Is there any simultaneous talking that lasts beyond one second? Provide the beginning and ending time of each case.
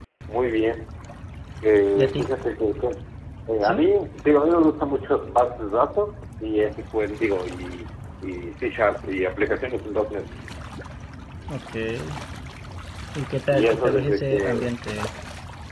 13.5-14.7

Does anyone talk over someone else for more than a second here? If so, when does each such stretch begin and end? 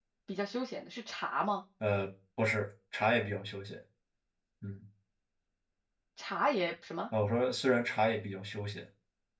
none

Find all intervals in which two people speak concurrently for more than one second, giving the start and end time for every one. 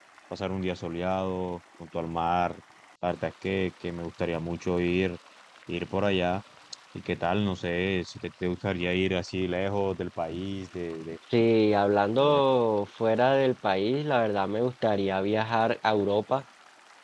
none

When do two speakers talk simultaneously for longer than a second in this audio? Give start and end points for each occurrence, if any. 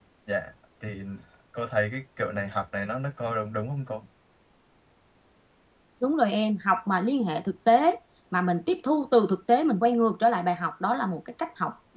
none

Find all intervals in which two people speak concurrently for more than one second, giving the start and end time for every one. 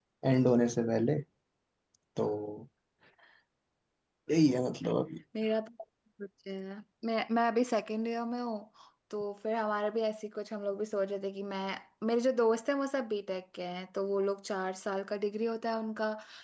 none

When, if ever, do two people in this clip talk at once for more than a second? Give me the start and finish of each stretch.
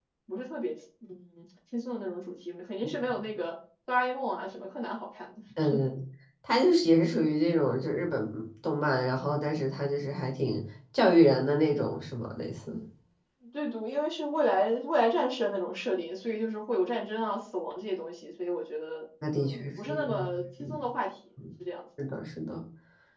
19.3-20.8

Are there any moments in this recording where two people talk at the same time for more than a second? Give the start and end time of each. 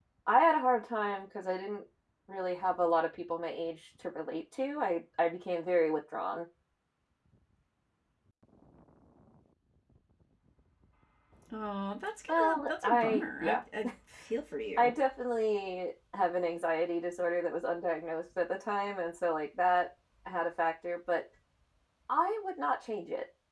12.3-13.6

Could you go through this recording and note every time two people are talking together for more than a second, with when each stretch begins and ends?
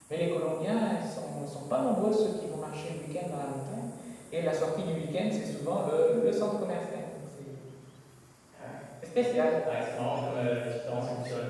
none

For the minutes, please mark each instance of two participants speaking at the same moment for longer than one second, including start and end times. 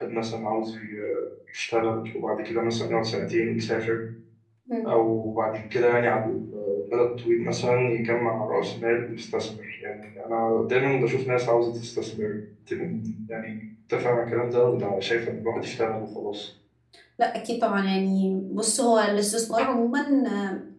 none

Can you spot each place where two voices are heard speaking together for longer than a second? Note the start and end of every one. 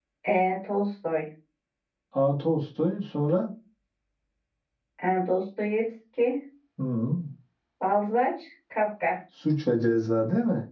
none

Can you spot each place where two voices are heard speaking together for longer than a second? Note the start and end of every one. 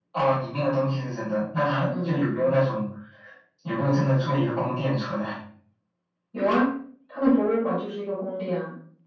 none

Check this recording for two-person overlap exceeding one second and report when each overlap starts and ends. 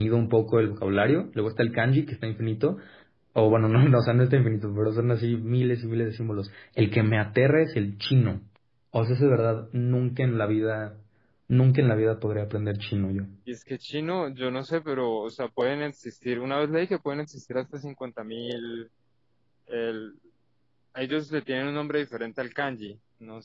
none

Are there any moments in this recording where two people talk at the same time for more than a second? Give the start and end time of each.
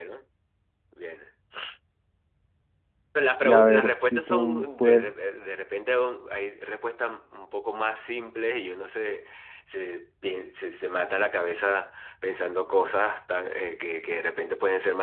3.4-5.0

